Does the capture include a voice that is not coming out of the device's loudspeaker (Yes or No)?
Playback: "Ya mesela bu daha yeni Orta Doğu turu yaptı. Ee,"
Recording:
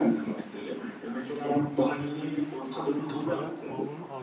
Yes